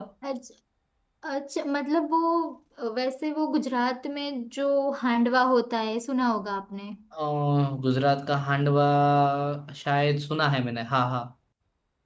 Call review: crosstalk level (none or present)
none